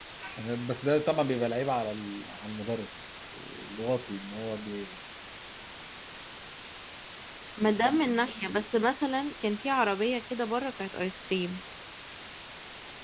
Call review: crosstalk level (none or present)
none